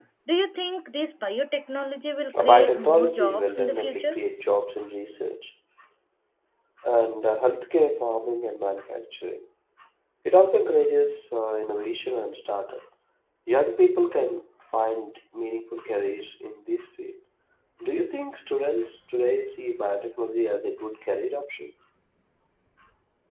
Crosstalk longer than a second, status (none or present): present